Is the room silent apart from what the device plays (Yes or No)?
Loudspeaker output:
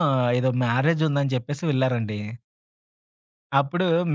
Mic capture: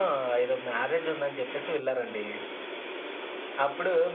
Yes